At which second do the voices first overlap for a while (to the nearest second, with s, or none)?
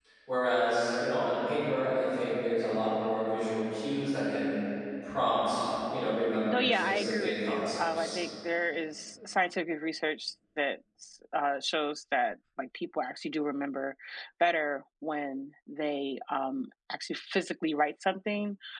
6 s